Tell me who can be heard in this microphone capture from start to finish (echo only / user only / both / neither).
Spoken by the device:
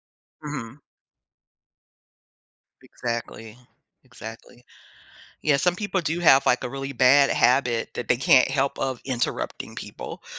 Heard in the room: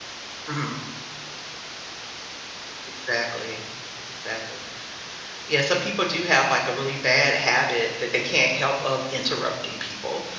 echo only